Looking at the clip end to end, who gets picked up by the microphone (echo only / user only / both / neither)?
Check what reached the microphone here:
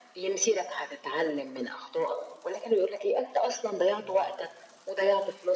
both